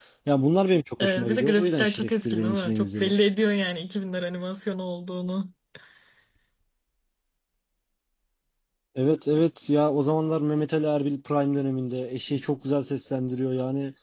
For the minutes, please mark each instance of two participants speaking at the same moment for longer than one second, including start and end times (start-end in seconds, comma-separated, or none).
1.0-3.1